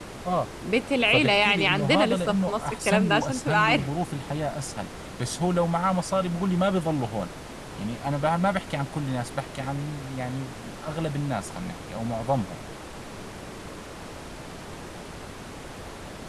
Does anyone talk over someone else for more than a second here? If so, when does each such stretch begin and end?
1.1-3.9

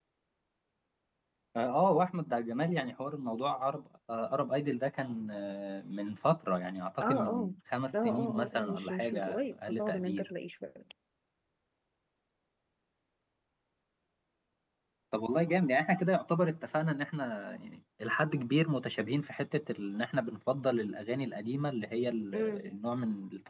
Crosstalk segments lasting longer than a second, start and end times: 8.0-10.3

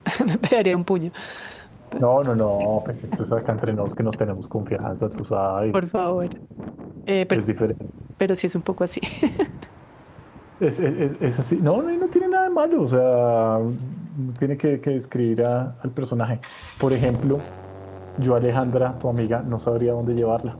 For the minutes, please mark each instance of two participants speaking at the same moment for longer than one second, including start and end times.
none

